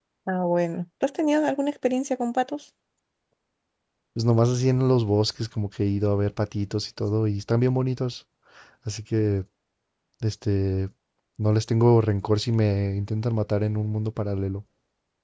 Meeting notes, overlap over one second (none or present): none